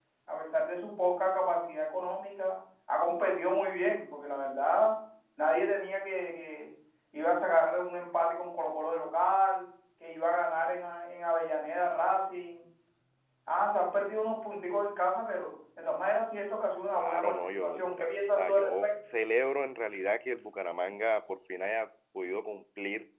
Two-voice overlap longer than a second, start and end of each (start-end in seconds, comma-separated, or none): 16.9-18.9